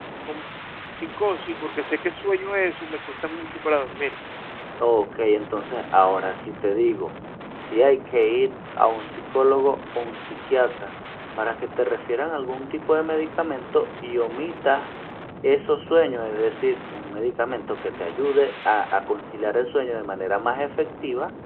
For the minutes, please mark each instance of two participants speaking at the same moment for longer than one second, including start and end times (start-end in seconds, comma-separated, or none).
none